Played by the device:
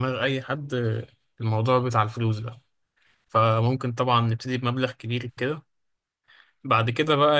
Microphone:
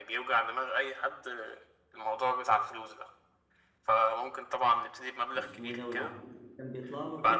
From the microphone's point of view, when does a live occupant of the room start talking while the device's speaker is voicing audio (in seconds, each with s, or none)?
5.3 s